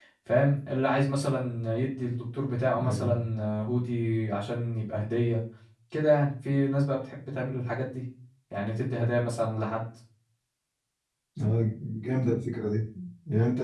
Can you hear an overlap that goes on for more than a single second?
No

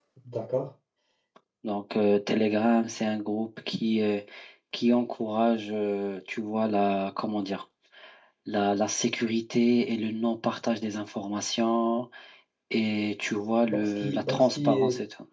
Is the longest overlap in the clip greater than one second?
Yes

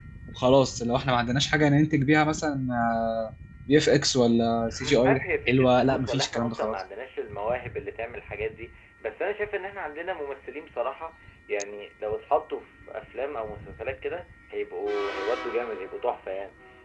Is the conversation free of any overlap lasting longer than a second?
No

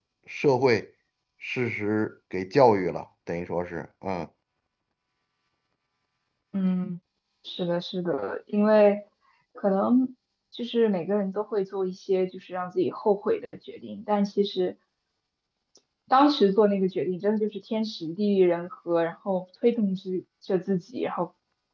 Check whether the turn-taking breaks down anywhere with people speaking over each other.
No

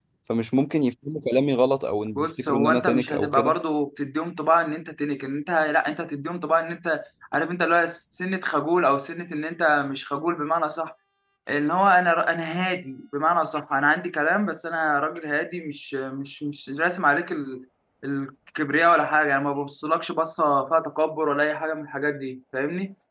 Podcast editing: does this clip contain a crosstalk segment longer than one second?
Yes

